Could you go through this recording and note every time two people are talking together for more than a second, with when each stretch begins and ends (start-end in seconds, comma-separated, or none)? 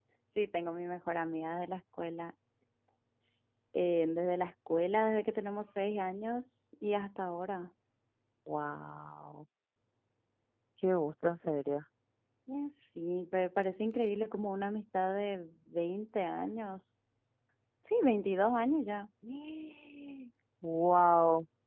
none